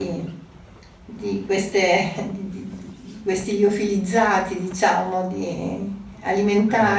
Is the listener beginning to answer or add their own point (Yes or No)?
No